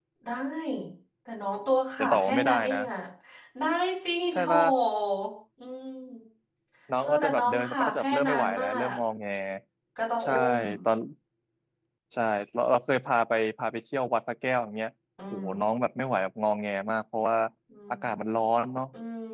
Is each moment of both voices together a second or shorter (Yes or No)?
No